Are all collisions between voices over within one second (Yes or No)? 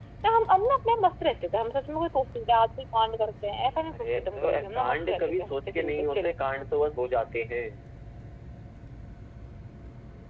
No